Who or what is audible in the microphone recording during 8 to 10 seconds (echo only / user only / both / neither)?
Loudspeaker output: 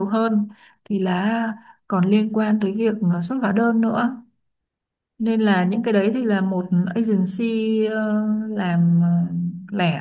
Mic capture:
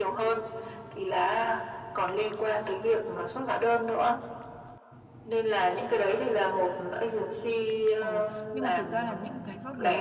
both